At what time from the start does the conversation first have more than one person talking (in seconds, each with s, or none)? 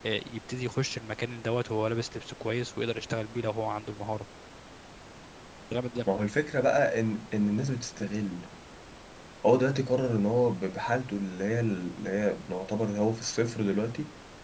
none